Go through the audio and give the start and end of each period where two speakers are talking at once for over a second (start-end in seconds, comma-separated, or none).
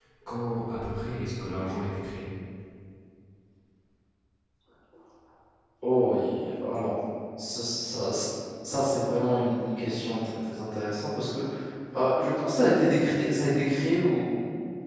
none